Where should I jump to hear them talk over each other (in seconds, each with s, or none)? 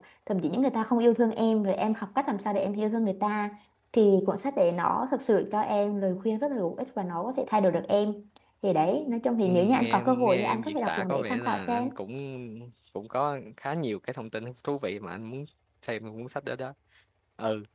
9.4 s